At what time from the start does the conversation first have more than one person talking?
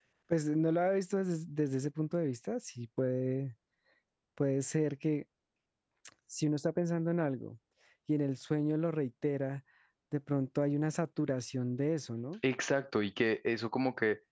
none

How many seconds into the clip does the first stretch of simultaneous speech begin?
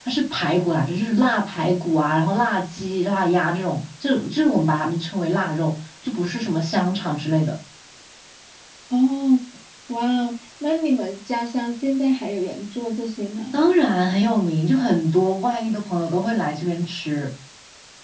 none

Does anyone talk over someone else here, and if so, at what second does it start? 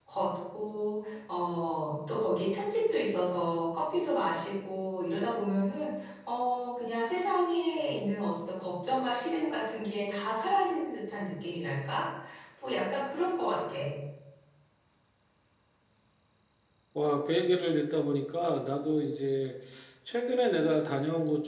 none

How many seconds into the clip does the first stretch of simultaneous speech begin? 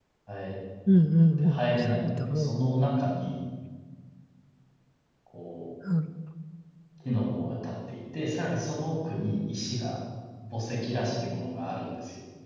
1 s

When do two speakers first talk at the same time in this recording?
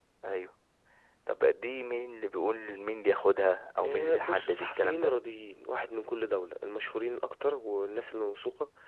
4 s

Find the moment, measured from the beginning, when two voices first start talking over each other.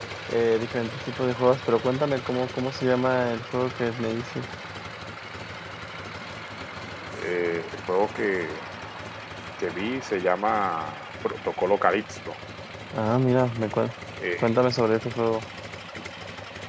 none

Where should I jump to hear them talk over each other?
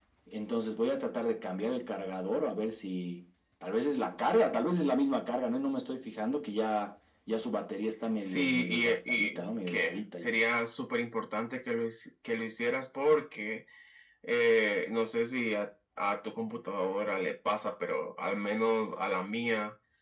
8 s

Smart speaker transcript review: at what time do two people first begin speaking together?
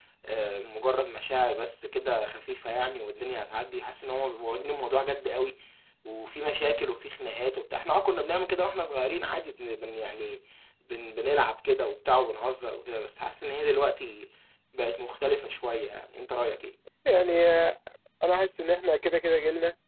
none

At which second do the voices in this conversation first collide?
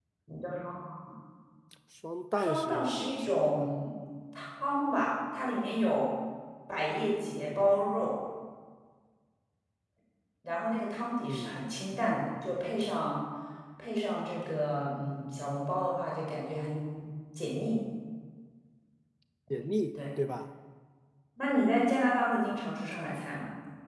2 s

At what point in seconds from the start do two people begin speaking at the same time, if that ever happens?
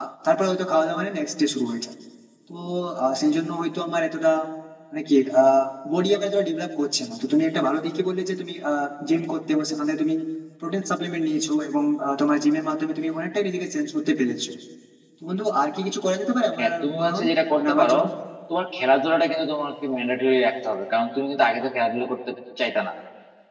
17 s

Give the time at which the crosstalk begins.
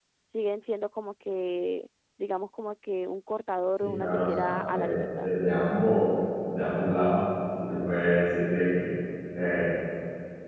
4 s

